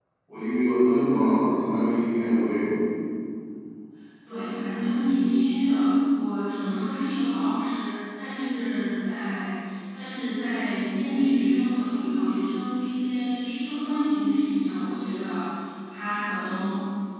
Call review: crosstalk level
none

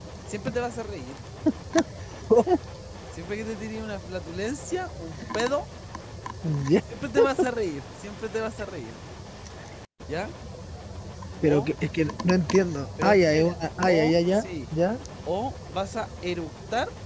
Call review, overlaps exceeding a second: present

